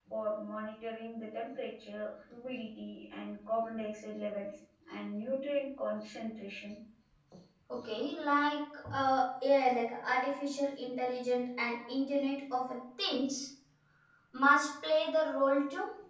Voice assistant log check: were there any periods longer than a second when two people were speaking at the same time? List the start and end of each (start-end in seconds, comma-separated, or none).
none